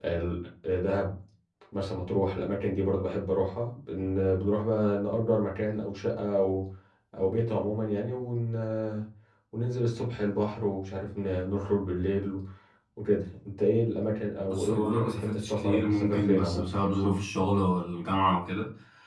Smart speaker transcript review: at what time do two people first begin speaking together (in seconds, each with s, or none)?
14.5 s